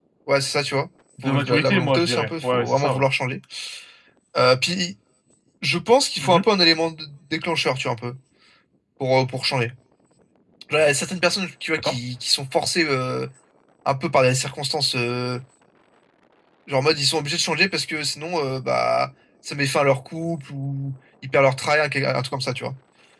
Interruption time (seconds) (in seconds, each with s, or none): 1.2 s